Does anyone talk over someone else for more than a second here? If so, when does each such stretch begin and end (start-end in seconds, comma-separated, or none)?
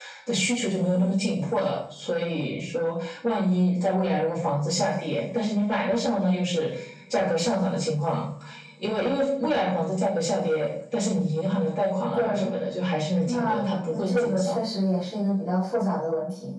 13.3-14.6